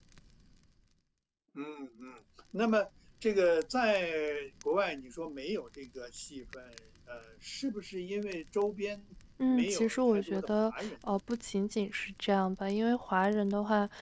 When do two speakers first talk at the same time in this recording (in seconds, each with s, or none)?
9.5 s